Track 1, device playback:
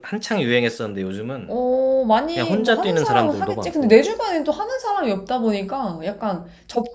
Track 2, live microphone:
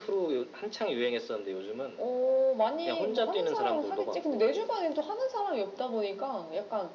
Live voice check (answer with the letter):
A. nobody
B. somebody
A